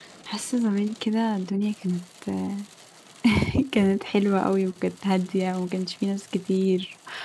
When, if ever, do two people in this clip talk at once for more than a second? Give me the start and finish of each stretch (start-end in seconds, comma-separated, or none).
none